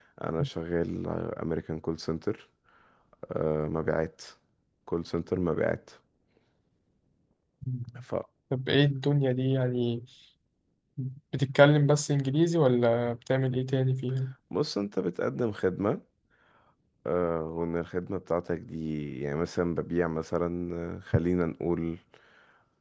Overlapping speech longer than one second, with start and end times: none

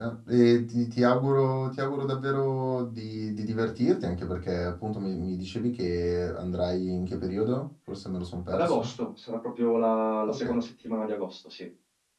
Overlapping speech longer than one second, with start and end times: none

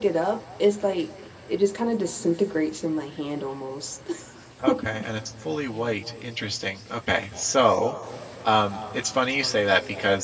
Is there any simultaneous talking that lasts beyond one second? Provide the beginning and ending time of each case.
none

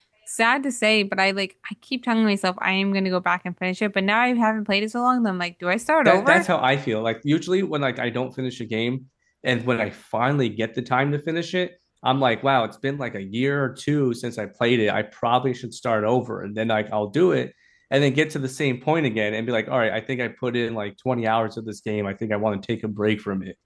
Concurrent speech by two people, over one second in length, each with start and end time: none

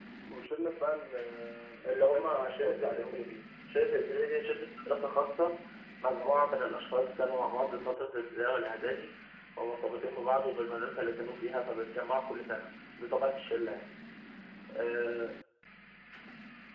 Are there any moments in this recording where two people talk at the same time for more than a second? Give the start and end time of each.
1.9-3.2

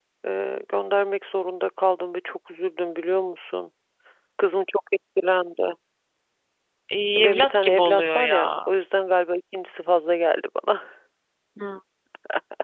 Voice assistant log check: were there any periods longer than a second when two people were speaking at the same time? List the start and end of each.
7.2-8.7

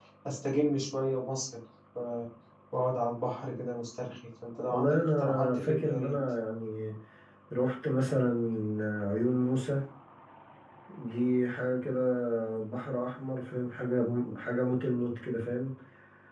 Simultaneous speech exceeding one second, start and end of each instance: 4.7-6.0

